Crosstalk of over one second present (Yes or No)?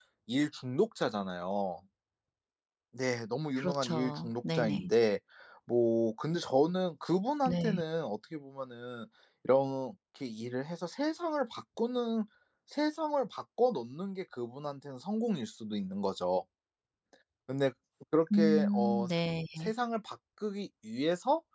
Yes